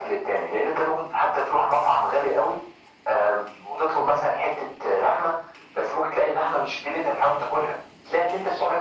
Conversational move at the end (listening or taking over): listening